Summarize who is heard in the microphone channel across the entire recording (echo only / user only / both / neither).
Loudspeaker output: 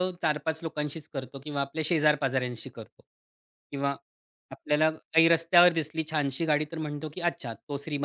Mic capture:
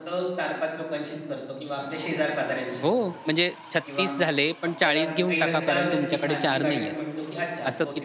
both